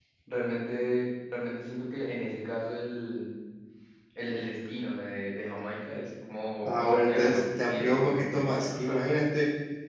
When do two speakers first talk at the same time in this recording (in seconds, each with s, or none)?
6.6 s